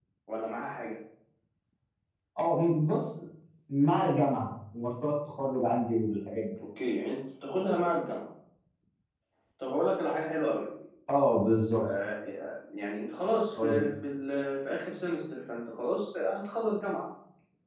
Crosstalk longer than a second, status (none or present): none